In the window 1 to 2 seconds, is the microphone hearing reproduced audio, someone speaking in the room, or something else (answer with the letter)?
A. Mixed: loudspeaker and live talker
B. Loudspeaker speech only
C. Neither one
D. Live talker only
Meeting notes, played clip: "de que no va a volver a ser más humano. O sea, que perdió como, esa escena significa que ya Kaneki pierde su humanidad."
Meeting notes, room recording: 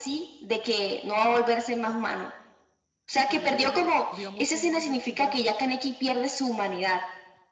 B